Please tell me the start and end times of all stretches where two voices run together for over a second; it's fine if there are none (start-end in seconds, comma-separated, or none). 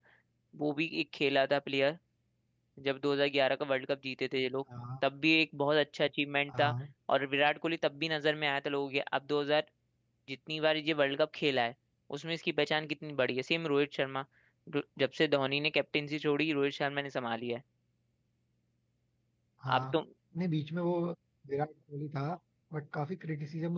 none